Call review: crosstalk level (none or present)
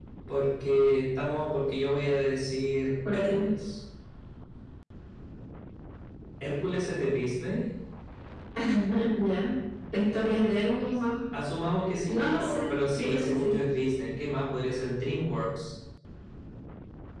present